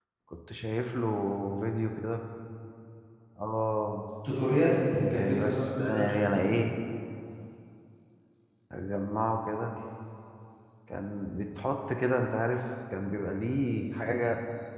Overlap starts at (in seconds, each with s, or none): 5.1 s